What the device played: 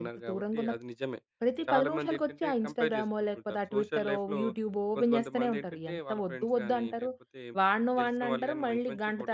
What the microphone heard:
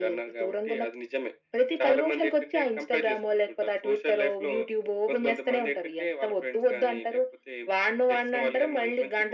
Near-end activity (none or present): none